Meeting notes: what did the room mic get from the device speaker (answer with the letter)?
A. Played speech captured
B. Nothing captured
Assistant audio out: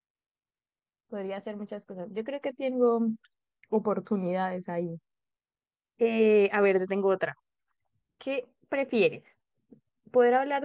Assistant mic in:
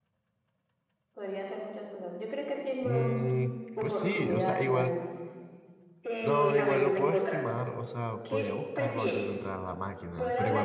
A